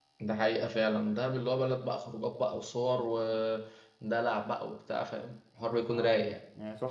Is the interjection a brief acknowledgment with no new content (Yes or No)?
No